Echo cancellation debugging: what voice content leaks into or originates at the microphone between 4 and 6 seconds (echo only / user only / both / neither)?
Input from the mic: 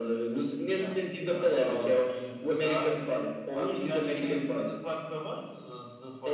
echo only